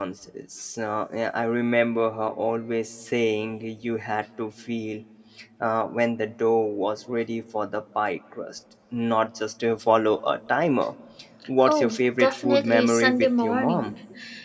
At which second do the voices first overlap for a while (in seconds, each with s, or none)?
11.7 s